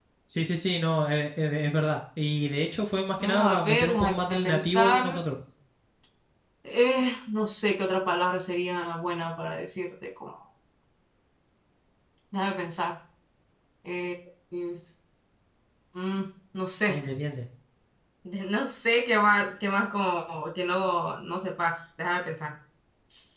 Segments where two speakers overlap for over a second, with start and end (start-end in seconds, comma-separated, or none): 3.2-5.2